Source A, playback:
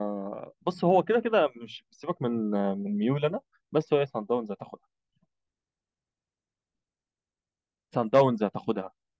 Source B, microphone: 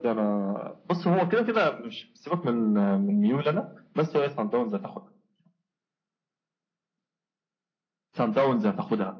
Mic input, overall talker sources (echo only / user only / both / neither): echo only